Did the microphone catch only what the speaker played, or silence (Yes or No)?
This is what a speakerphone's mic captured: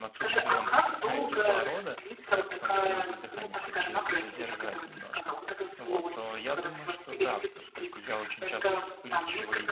No